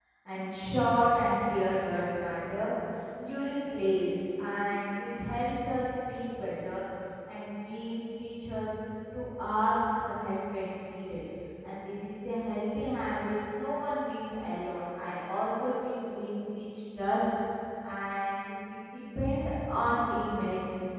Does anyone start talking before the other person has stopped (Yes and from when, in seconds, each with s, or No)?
No